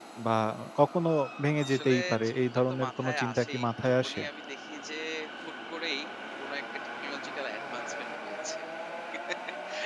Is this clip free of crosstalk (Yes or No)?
No